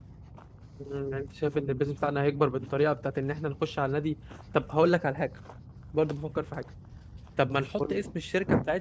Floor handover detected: No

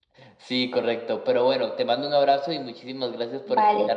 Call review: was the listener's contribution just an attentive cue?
No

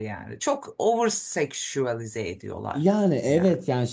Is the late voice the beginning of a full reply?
Yes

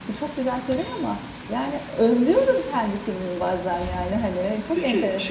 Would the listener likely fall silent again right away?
No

